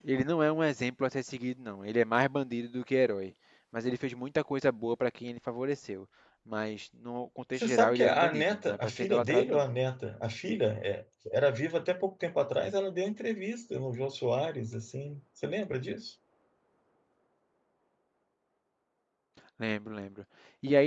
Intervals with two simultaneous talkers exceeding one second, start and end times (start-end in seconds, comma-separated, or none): 7.6-9.6